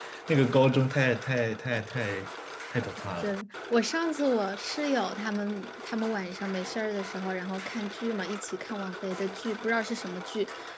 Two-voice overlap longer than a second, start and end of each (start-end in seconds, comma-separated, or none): none